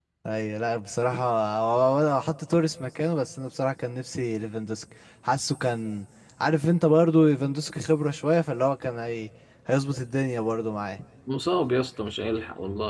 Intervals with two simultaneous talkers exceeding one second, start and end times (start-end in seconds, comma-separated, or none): none